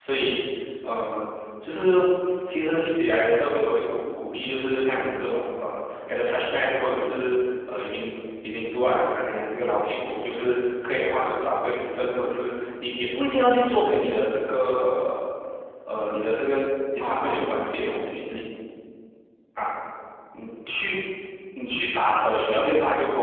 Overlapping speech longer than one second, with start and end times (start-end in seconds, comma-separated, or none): 17.0-18.4